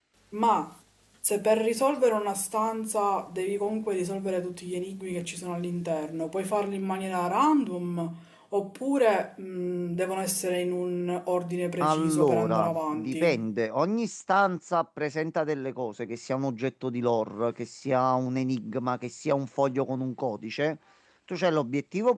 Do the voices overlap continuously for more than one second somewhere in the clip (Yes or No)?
Yes